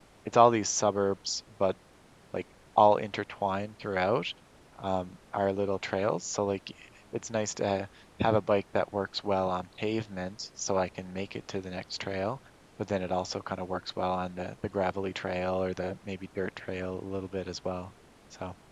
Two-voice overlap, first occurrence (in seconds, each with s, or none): none